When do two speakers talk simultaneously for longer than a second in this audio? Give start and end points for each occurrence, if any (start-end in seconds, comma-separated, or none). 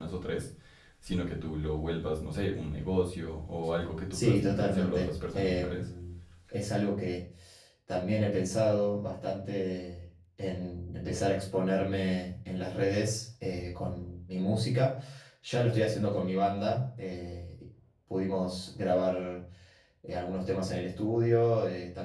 4.1-5.9